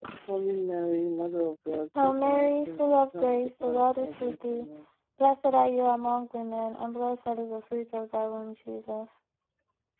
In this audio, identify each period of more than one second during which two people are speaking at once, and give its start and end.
2.0-4.7

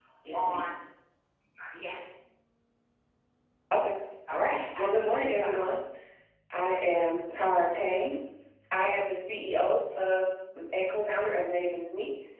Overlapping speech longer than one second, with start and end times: 4.3-5.8

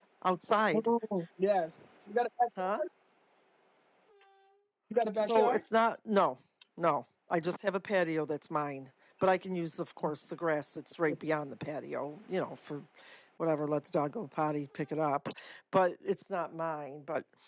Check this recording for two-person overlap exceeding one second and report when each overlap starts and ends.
none

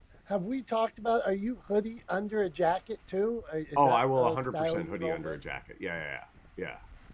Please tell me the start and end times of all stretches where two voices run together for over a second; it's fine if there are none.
3.8-5.4

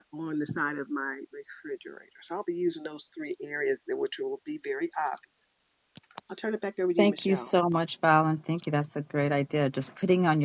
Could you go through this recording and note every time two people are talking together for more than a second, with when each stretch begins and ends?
none

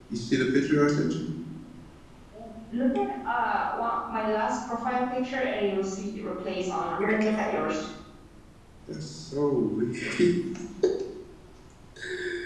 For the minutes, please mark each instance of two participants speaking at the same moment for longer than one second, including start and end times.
none

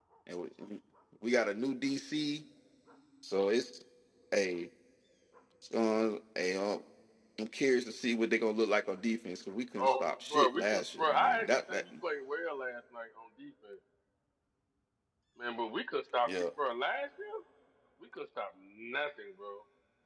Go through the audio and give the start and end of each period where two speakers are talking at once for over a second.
9.8-11.8

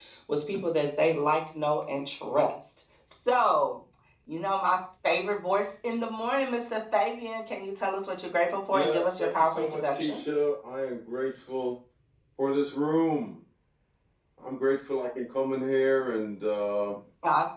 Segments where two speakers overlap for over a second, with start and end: 8.7-10.2

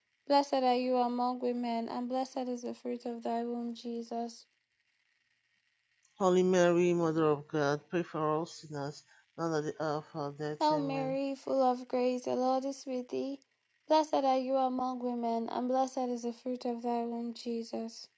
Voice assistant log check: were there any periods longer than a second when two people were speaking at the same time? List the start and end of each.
none

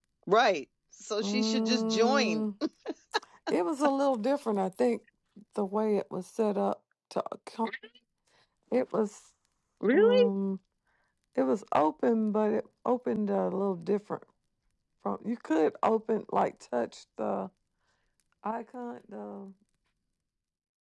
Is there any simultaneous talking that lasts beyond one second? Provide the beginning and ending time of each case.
1.2-2.5

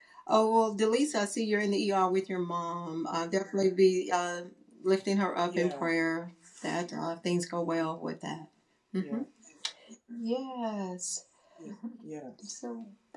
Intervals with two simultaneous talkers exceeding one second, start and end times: none

